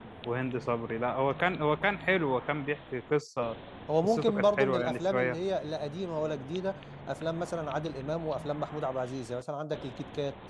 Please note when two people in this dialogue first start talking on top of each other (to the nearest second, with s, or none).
4 s